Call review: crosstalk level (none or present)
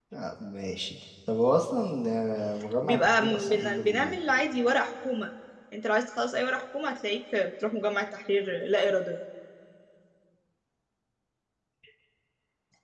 present